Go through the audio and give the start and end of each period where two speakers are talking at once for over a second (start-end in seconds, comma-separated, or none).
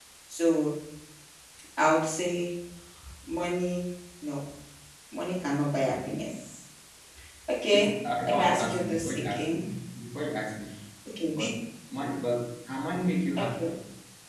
8.3-9.7